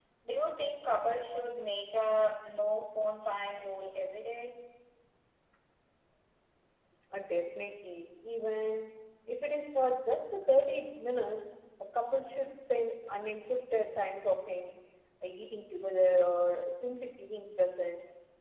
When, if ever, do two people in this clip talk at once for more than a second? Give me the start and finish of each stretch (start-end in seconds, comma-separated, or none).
none